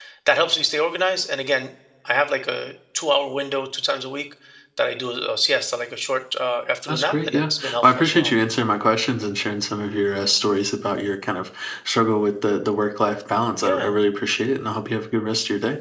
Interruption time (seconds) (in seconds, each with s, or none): 6.9 s